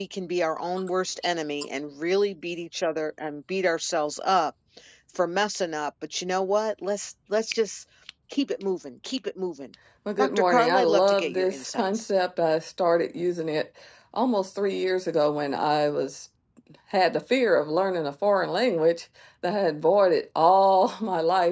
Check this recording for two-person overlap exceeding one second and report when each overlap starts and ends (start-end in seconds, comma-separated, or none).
10.2-12.1